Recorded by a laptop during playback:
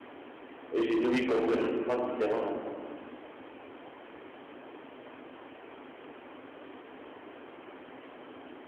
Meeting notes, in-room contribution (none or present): present